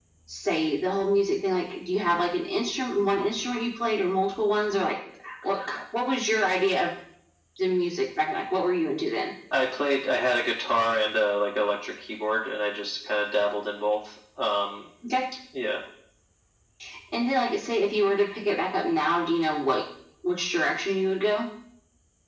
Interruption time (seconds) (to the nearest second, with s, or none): none